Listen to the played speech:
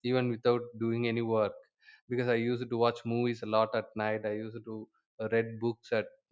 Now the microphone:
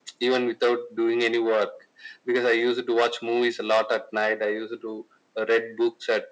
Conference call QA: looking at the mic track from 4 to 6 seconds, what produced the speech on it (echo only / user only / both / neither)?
echo only